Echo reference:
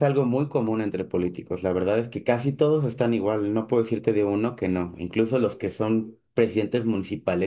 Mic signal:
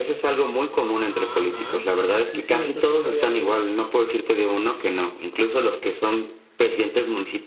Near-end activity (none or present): present